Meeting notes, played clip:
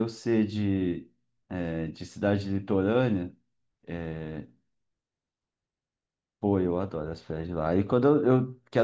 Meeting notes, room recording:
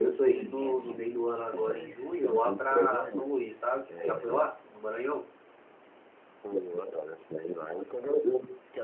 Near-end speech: present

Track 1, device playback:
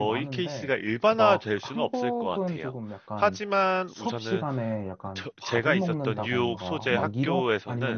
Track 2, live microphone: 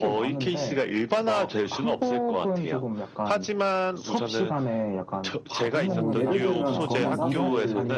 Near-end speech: present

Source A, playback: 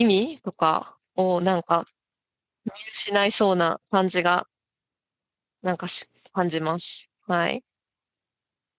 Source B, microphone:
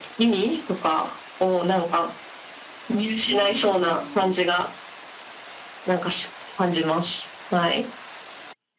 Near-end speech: present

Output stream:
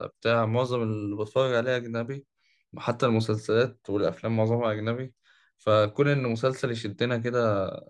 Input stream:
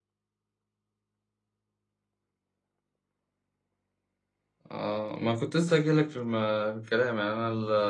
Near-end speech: present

